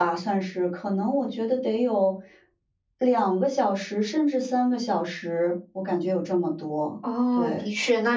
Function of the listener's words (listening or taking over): taking over